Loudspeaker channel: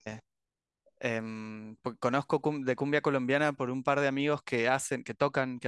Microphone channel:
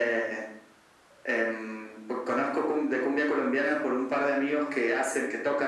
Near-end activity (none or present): none